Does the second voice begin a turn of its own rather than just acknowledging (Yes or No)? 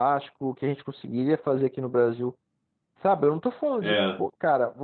No